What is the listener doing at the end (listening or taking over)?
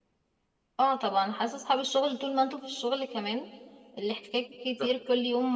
listening